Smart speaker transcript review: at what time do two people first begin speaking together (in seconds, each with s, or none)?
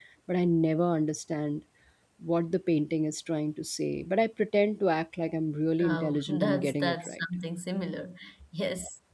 5.8 s